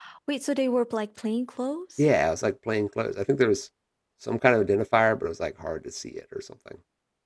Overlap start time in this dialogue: none

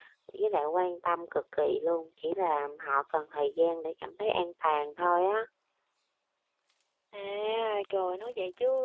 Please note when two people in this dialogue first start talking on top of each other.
none

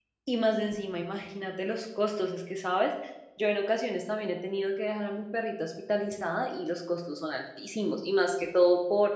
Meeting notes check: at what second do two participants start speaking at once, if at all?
none

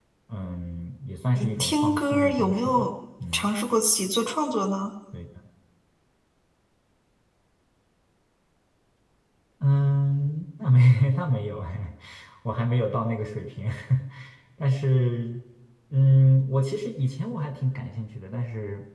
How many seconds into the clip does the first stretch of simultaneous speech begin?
1.4 s

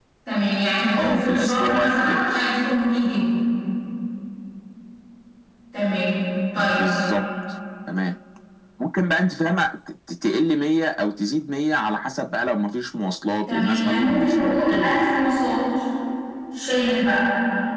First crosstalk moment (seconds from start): 1.0 s

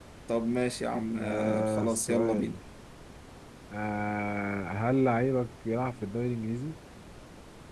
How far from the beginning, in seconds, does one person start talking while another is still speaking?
1.2 s

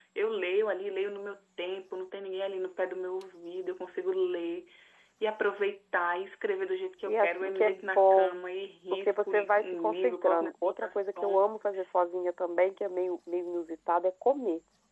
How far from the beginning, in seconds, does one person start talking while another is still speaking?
7.1 s

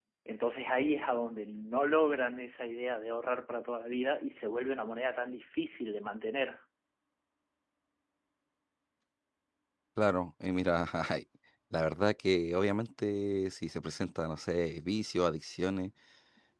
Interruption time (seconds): none

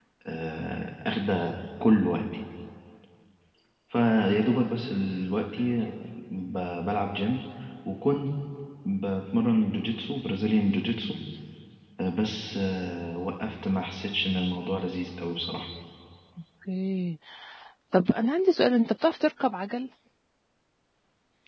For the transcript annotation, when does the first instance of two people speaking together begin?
none

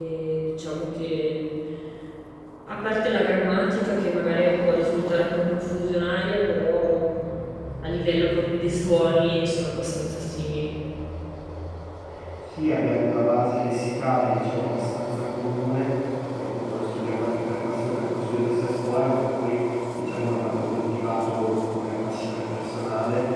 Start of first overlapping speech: none

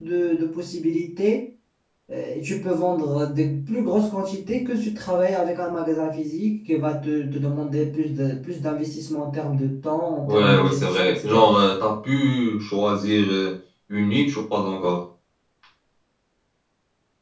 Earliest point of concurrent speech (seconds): 10.2 s

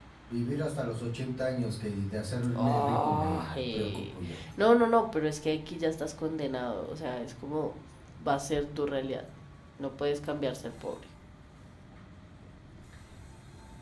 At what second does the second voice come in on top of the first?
2.6 s

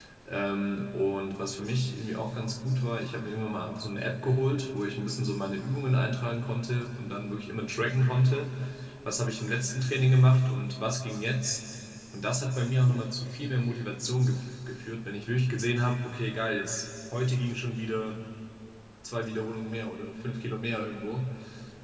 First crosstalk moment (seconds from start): none

